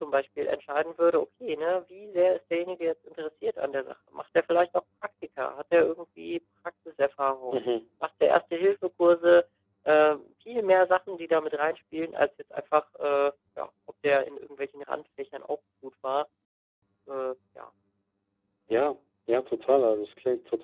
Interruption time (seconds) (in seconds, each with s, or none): none